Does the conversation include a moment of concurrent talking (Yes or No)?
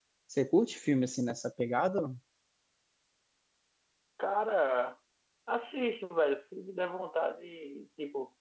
No